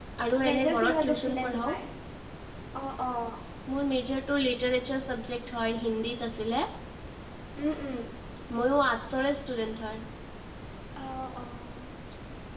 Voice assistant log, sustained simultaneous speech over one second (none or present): present